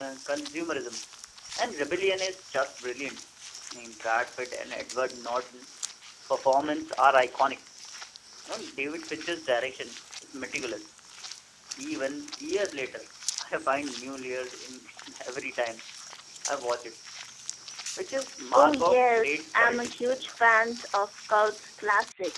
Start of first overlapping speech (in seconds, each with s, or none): 18.5 s